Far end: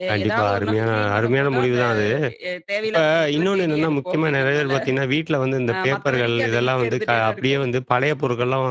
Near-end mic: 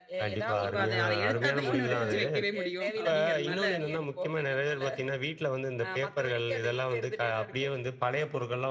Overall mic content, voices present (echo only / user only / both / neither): both